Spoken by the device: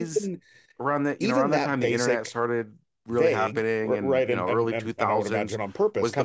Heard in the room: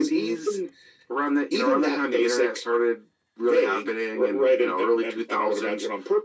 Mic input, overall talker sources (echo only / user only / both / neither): echo only